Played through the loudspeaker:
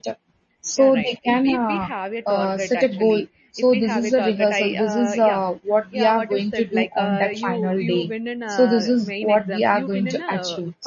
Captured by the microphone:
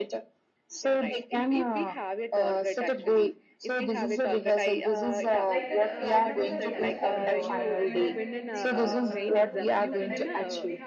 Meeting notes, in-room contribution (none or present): present